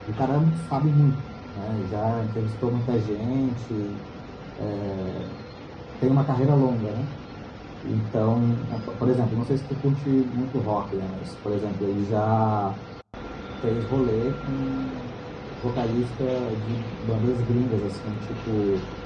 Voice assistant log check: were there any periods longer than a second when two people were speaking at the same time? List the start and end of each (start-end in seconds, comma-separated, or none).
none